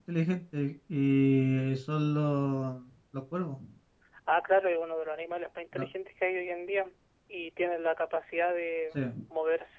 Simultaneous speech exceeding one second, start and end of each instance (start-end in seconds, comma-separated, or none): none